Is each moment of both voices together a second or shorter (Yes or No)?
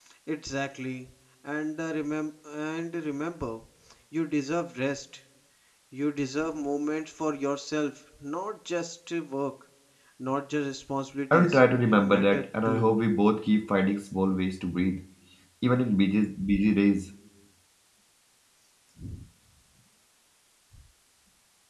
No